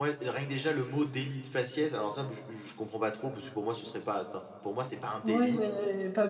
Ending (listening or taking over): taking over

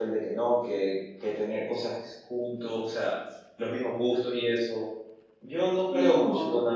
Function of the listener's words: listening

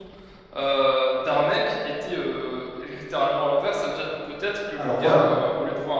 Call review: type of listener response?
listening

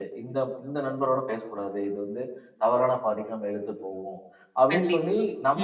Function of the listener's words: listening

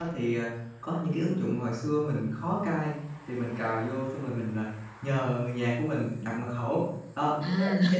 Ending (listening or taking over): listening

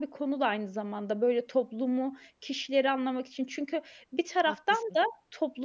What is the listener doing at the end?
listening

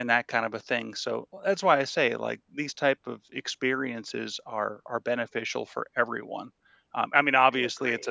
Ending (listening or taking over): listening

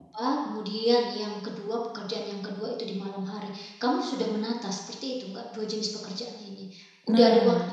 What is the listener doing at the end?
taking over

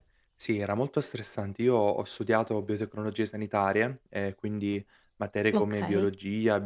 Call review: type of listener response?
listening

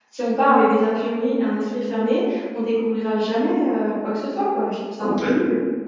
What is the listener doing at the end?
taking over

